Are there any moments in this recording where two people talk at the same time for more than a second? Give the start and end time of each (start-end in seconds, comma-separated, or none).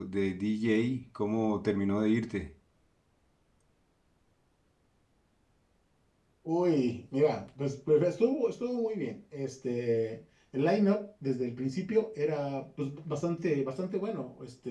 none